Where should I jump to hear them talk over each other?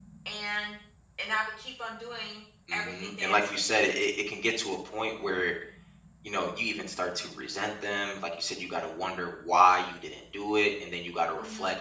2.7 s

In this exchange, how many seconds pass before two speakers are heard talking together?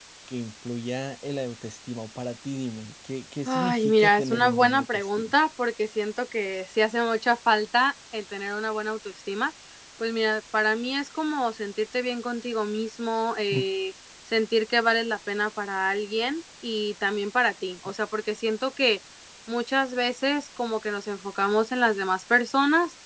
3.5 s

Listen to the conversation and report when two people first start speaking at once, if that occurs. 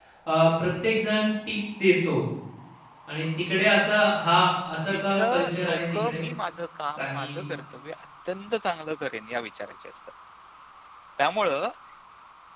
4.9 s

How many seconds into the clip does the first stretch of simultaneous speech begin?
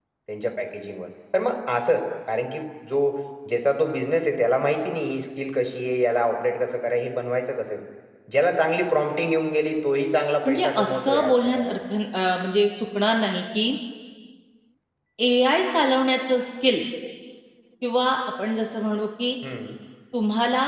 10.4 s

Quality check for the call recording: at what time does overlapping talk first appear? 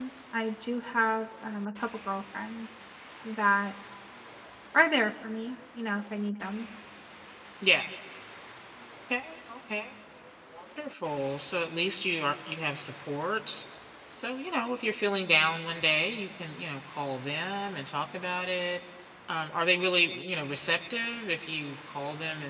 none

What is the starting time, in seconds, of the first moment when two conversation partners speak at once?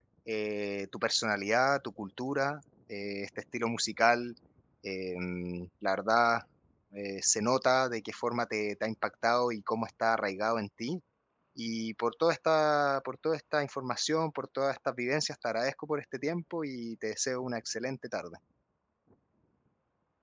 none

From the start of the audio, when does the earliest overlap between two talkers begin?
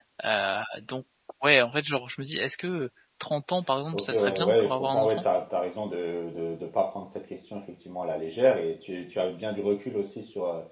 3.9 s

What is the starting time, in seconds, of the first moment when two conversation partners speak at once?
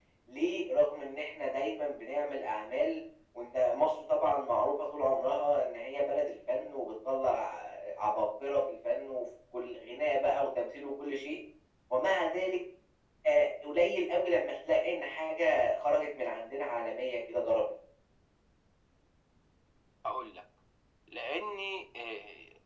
none

